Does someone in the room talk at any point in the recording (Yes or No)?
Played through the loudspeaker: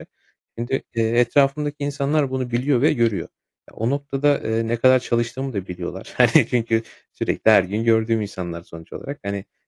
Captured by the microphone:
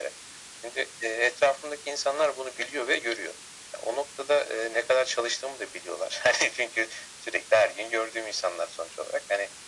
No